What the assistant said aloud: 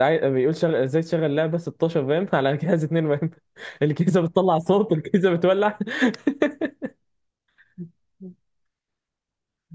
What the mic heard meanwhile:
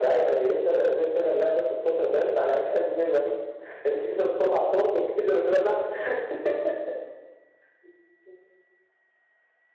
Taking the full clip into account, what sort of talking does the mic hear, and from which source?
echo only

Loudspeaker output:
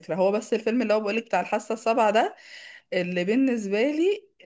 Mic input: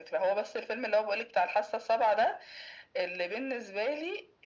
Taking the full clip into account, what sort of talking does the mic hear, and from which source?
echo only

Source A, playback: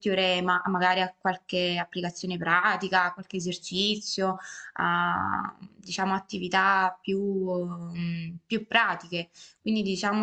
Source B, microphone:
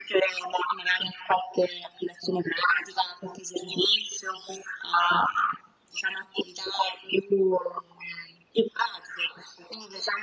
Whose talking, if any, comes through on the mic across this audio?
echo only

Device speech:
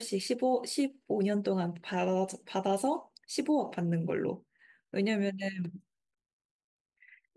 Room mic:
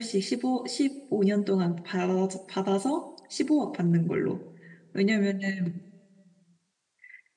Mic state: echo only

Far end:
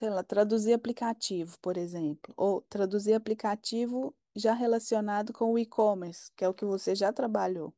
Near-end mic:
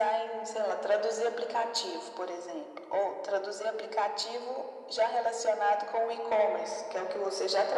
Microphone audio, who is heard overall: echo only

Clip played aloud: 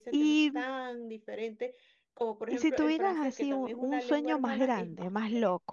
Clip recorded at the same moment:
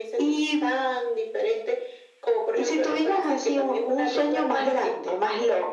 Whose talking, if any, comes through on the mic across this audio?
echo only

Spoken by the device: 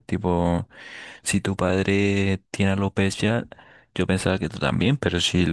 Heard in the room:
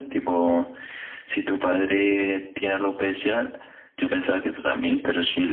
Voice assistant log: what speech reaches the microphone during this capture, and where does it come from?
echo only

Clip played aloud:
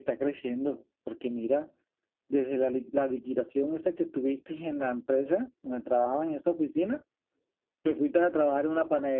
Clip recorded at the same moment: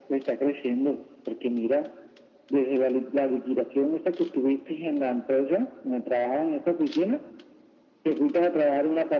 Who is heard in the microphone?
echo only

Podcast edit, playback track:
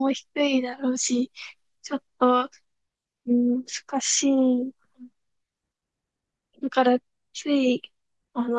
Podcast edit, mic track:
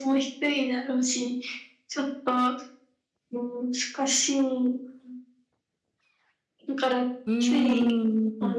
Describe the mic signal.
both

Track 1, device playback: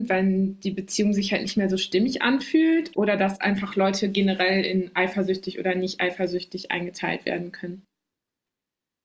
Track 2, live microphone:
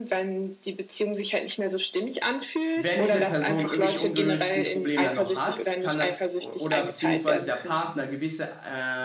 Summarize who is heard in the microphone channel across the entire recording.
both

